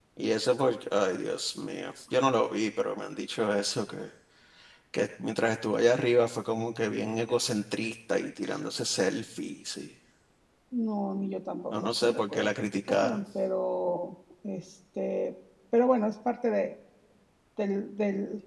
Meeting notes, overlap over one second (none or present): present